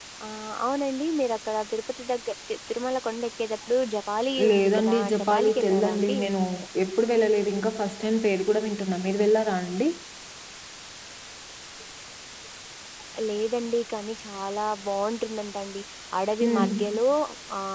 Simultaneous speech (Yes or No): Yes